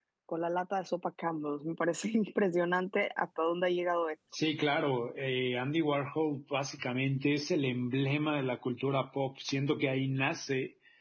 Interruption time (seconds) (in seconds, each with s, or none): none